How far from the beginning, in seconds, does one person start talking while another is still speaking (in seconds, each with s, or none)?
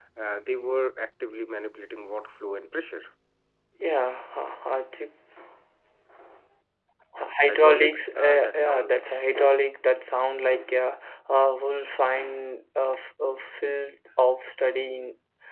7.4 s